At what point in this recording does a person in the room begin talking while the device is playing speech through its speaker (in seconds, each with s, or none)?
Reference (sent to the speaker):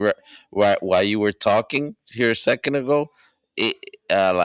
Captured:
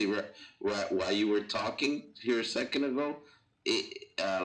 none